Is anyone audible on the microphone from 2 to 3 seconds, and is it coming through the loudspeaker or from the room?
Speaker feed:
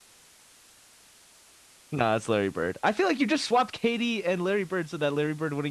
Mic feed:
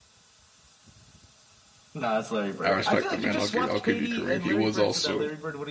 both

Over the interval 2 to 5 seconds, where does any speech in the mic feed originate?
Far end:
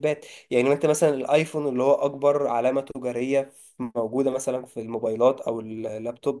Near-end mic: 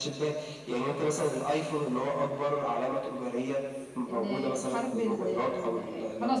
both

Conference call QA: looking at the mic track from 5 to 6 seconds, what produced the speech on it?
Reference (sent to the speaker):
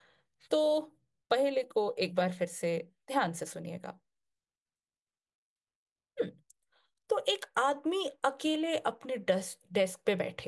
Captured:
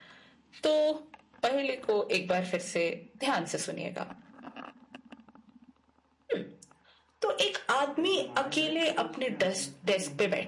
neither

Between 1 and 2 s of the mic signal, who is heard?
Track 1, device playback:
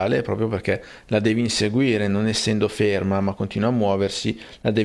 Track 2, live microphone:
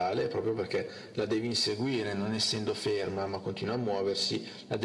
echo only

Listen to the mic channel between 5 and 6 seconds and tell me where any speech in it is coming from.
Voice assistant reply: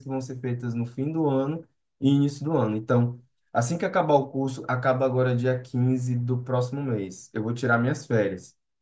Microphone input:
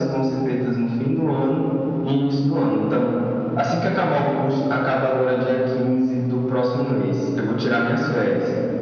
echo only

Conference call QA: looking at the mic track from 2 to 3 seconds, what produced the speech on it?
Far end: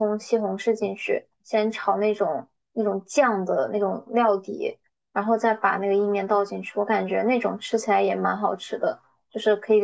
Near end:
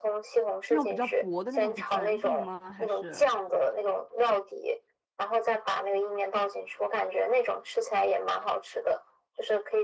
both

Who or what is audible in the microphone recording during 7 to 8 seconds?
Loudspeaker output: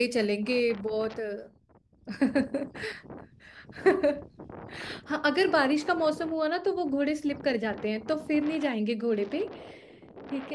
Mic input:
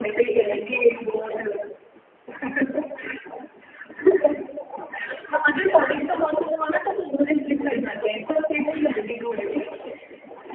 echo only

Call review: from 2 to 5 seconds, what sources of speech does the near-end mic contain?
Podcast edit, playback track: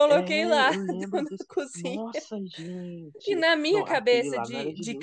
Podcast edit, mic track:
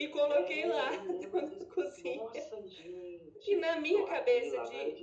echo only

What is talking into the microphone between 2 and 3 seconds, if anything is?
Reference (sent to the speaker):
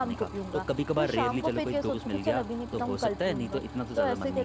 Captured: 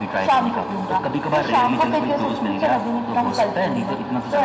echo only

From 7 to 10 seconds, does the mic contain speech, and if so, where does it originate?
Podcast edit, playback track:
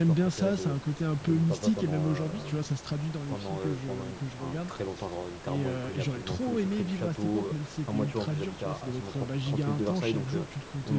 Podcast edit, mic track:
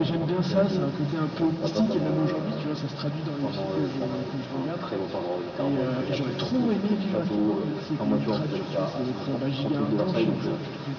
echo only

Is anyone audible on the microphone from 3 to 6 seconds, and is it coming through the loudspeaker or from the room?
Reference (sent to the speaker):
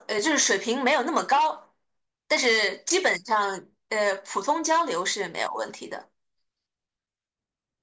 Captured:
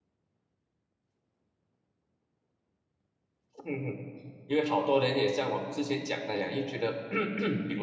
user only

